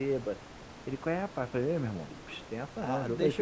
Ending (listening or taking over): taking over